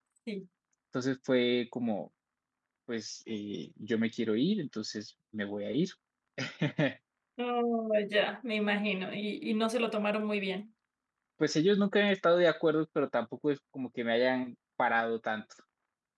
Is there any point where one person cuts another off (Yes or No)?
No